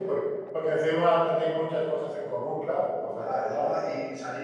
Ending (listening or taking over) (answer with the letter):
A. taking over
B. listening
A